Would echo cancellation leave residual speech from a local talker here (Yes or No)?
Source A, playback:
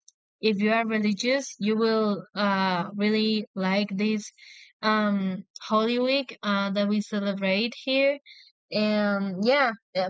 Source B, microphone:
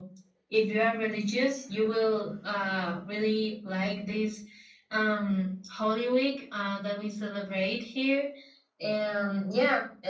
No